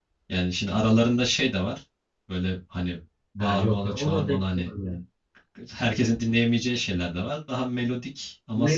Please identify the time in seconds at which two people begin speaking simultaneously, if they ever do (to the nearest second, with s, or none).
3 s